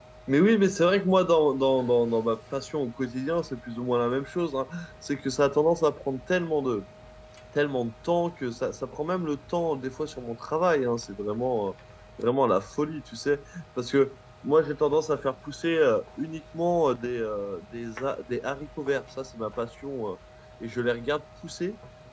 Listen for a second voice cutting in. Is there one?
No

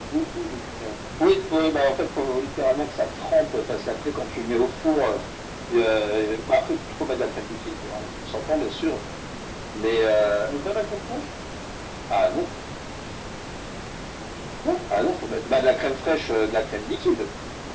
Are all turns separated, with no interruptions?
Yes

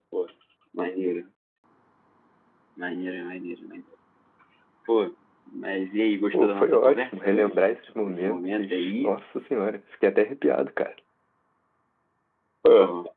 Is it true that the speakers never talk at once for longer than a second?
No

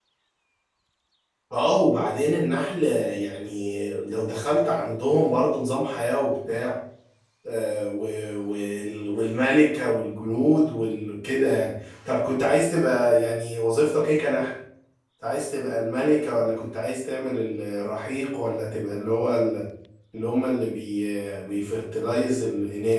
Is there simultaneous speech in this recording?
No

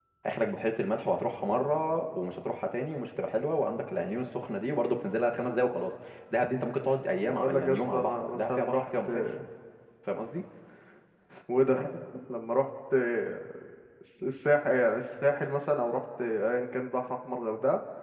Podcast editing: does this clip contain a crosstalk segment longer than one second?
Yes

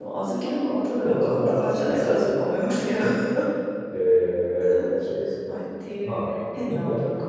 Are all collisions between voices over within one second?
No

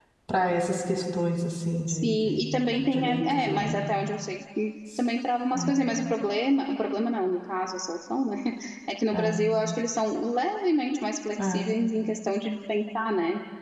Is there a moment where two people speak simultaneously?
Yes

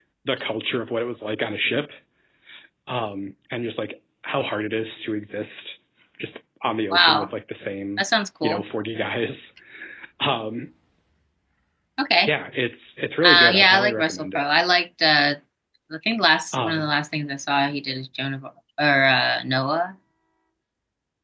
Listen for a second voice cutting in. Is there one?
Yes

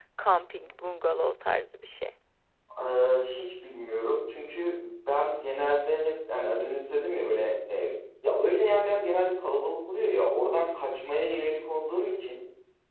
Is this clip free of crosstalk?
Yes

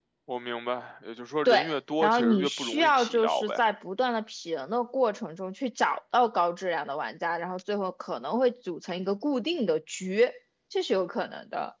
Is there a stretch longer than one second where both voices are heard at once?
Yes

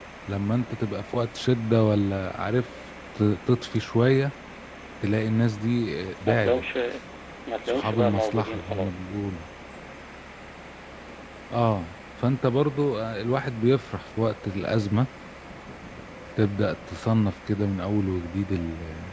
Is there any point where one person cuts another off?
Yes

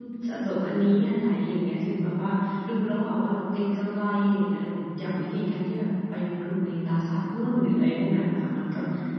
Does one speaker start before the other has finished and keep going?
No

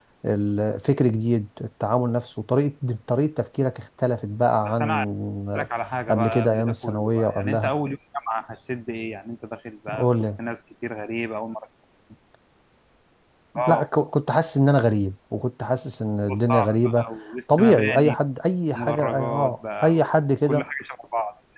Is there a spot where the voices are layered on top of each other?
Yes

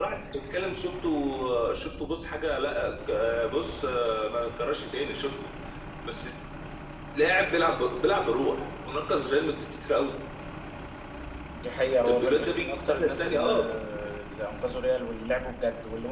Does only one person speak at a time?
No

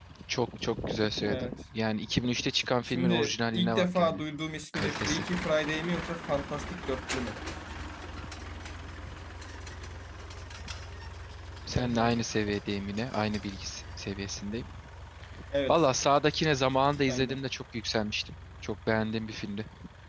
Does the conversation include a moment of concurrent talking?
Yes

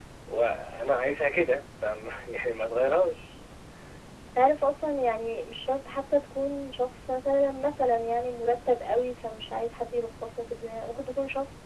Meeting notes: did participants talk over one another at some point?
No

